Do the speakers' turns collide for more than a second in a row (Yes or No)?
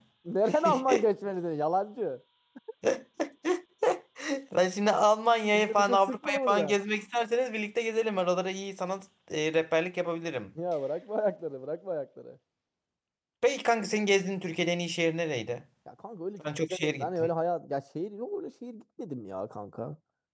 Yes